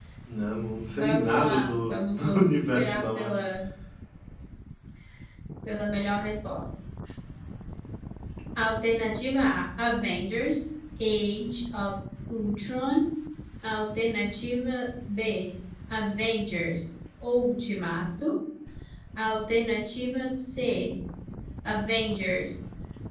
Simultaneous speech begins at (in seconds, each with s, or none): 0.9 s